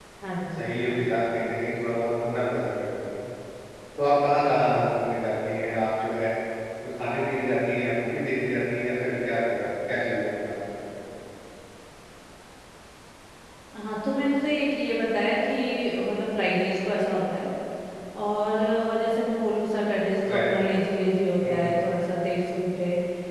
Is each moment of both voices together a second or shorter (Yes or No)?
Yes